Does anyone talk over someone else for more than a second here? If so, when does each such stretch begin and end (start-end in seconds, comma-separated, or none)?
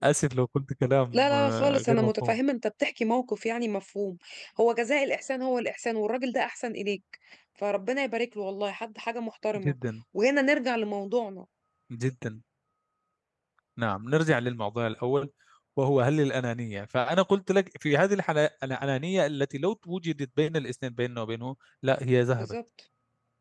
1.1-2.4